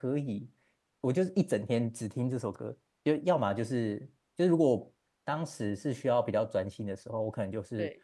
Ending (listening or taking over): listening